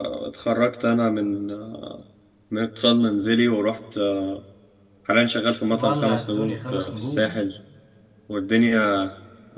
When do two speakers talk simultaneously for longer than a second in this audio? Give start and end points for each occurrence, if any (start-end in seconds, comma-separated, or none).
5.7-7.4